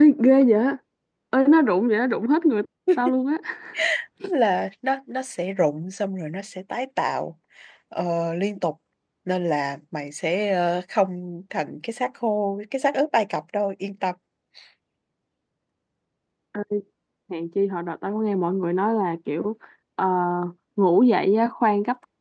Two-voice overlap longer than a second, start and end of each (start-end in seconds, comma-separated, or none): none